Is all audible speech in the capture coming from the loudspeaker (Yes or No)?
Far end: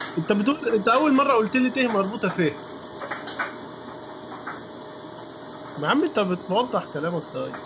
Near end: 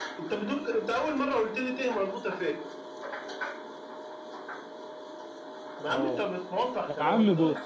No